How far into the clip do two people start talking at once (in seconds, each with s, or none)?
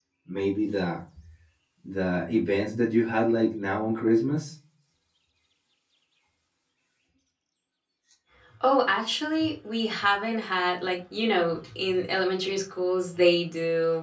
none